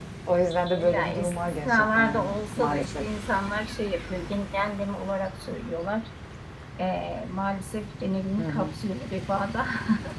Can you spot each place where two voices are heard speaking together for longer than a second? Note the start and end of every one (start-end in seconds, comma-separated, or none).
0.7-3.1